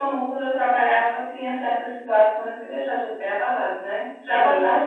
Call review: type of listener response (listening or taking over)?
listening